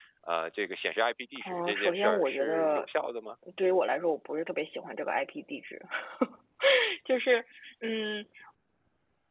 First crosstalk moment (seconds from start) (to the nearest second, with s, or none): 1 s